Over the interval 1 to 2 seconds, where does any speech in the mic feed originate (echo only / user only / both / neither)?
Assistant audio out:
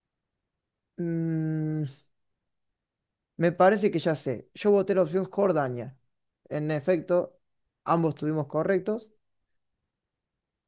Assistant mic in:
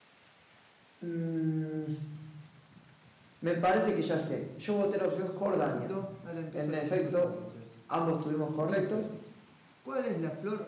echo only